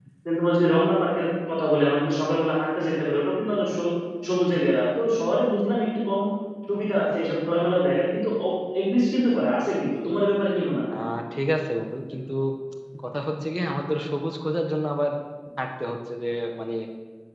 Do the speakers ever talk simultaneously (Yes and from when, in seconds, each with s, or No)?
No